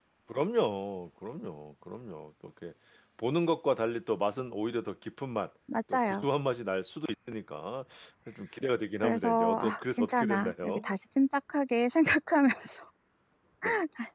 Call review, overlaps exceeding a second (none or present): present